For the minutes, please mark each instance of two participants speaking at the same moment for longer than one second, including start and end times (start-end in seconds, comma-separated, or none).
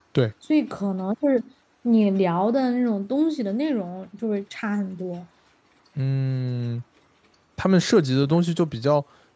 none